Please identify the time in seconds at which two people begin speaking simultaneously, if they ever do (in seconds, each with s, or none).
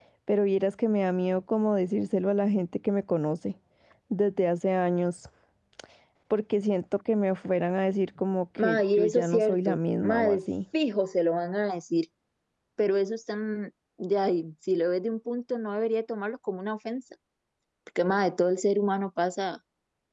8.6 s